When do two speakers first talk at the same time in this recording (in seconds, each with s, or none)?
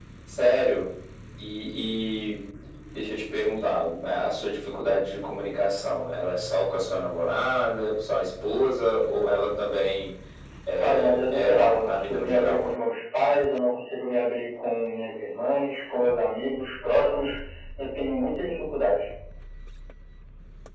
10.8 s